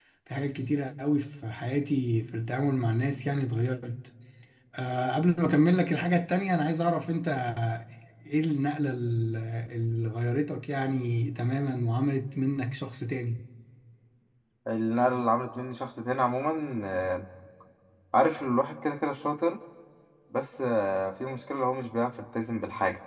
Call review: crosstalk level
none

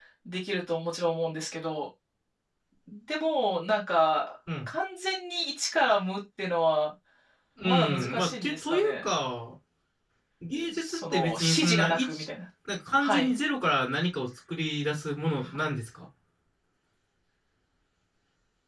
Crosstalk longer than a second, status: present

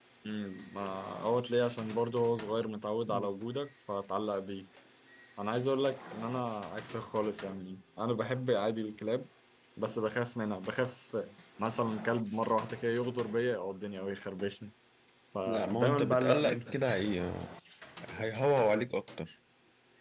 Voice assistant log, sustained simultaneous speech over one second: present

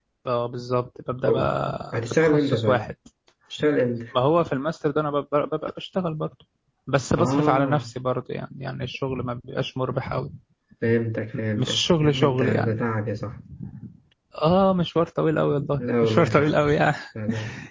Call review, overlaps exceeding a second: present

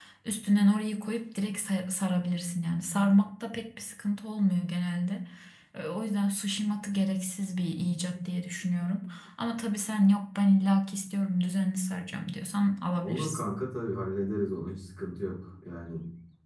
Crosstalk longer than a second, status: none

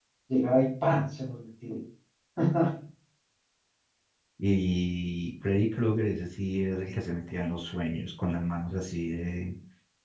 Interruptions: none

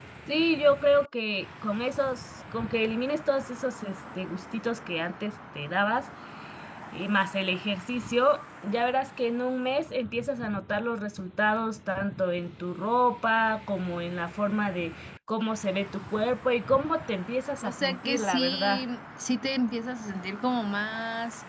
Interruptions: present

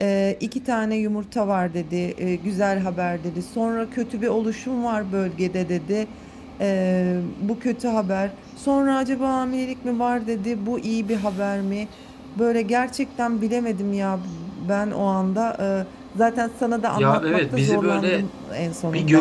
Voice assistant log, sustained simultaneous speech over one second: present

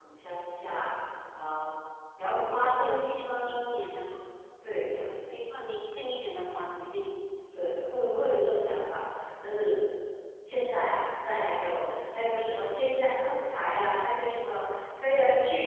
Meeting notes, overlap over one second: present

